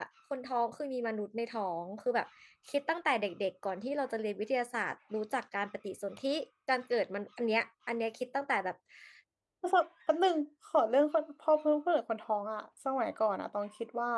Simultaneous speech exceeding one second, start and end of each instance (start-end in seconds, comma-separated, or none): none